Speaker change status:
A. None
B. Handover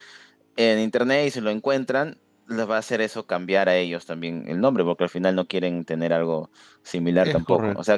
A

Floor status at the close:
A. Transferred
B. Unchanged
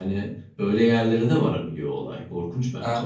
A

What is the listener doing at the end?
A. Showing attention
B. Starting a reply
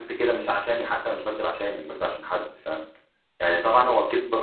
A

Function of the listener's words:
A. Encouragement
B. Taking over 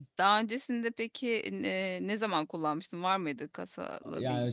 B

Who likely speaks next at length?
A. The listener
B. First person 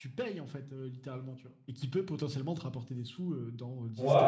A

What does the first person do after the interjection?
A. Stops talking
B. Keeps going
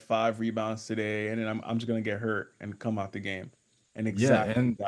A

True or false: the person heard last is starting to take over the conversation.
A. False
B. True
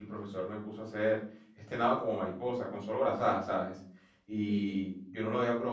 A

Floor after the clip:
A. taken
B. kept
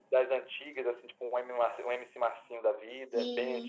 A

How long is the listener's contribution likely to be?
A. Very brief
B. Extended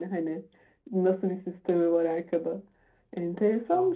A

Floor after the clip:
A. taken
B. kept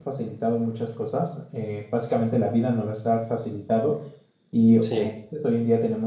B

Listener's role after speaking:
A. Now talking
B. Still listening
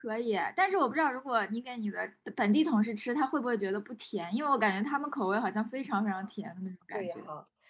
A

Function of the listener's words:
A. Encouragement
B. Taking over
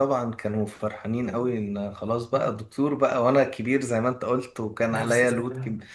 A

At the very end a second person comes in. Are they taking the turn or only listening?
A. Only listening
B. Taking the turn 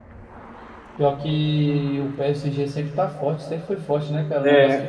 A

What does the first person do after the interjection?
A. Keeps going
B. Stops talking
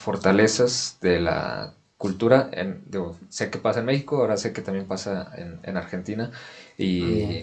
A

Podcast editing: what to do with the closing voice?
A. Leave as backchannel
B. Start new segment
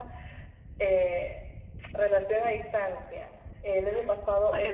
A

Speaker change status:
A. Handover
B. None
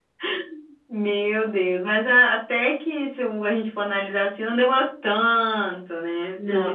A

